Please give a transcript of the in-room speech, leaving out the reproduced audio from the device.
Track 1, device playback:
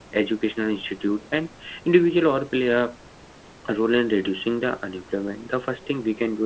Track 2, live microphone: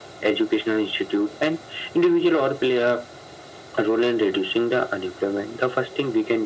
none

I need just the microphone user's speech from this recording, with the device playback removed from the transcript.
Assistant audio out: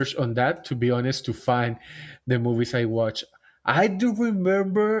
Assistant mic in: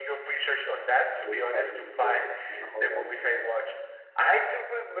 the cabin in the woods in a horror movie.

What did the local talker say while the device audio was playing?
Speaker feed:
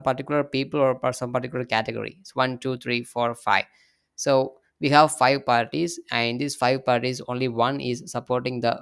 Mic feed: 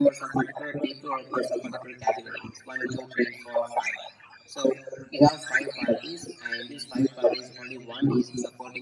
none

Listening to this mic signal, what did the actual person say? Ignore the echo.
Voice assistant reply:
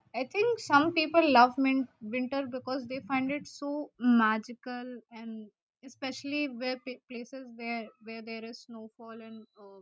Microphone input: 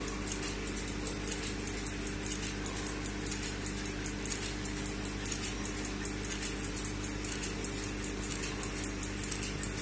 none

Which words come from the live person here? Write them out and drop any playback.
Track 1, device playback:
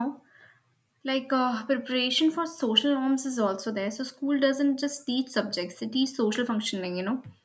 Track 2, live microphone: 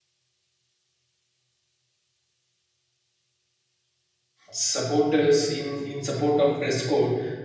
supporters in in support of dress code

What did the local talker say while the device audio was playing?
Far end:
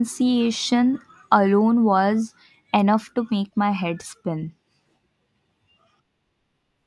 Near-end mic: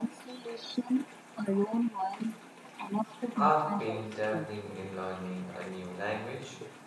I've been dabbling in learning a new language.

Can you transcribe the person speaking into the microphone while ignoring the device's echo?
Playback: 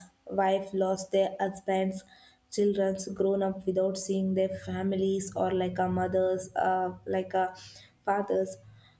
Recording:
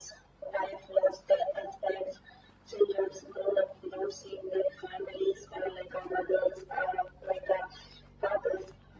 none

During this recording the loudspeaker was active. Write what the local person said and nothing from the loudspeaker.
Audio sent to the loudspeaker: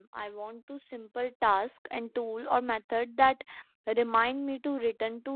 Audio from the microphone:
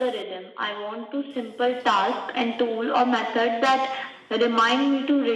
none

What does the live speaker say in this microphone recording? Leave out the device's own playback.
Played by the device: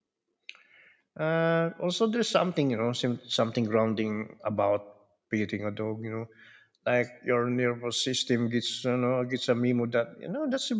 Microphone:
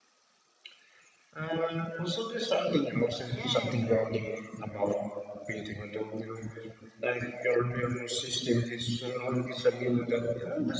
Yeah,

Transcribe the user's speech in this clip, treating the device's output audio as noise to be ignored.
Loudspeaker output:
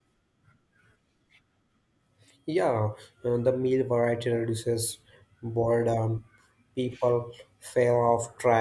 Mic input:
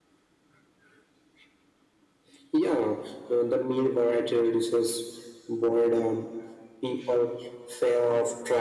none

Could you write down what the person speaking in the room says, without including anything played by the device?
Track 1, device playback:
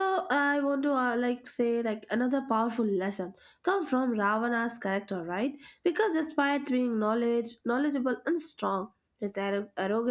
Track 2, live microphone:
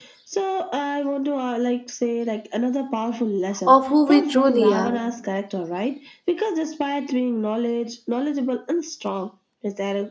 of who we truly are.

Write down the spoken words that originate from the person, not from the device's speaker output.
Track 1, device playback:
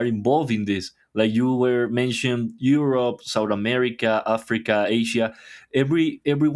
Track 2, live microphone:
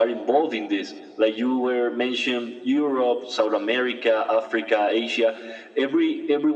none

